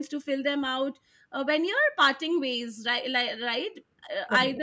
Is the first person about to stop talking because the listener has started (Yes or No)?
No